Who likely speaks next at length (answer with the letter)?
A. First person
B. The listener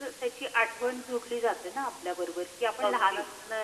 A